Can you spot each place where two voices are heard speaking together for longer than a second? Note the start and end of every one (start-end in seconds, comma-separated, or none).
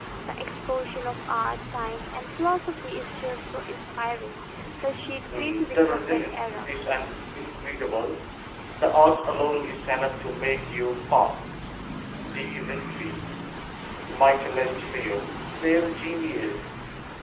5.3-6.7